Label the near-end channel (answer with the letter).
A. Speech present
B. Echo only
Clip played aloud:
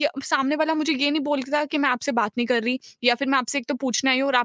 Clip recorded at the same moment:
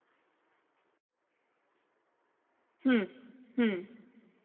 A